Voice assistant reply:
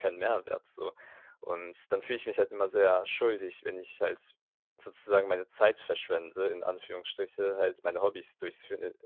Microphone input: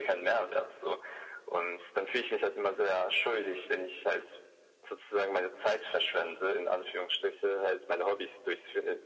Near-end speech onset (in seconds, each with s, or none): none